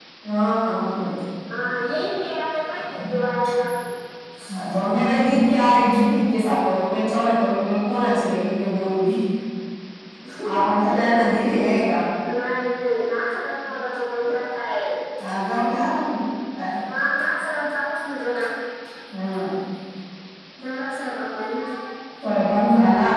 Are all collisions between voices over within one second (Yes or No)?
Yes